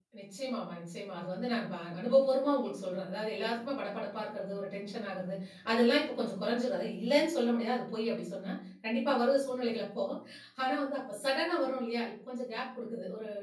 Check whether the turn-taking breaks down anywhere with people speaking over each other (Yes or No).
No